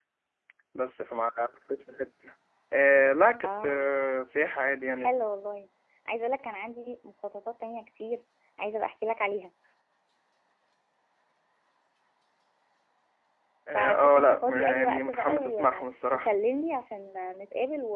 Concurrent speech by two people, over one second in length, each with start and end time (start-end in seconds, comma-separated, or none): 13.7-15.6